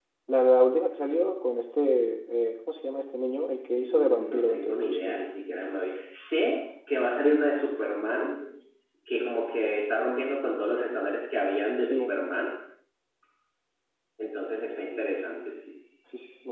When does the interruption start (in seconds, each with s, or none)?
3.8 s